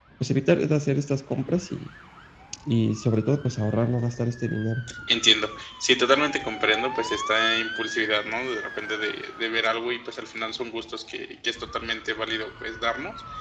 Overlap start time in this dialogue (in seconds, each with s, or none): none